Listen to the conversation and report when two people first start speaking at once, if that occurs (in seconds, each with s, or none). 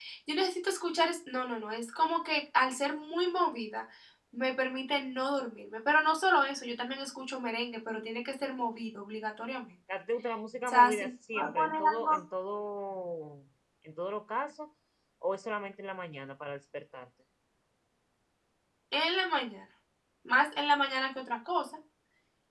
10.7 s